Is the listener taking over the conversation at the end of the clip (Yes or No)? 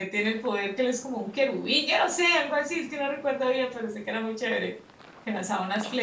No